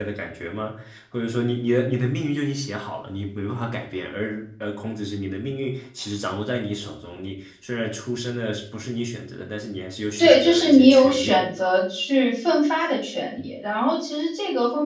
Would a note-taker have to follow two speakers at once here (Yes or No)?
Yes